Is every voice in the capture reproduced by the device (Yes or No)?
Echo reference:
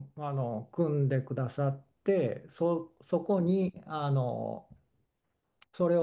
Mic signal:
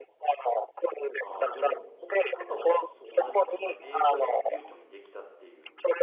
No